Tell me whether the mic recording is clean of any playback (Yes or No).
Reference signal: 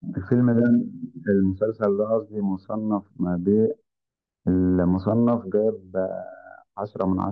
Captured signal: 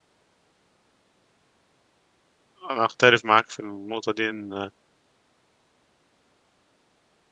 Yes